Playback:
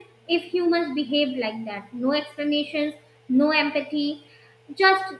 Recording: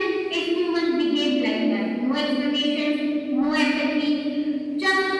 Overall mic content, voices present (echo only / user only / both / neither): echo only